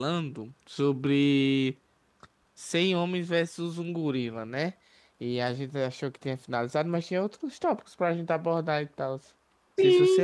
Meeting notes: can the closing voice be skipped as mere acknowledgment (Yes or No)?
No